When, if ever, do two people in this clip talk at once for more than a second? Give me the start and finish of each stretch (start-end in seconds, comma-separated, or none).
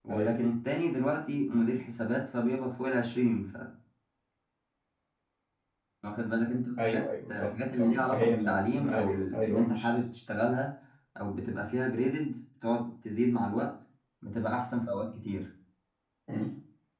6.8-9.9